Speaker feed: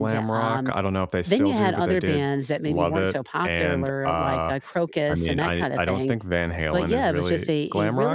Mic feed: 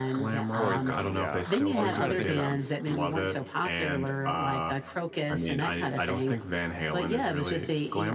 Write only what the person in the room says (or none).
Poison, yeah. I was trying to think of them.